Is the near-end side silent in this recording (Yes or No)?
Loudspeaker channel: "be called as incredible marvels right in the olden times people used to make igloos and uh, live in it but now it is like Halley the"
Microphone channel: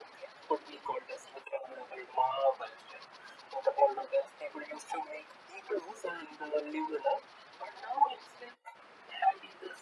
Yes